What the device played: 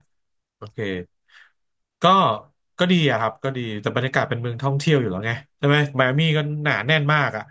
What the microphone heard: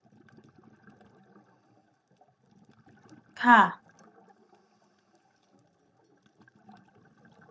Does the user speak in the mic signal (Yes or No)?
Yes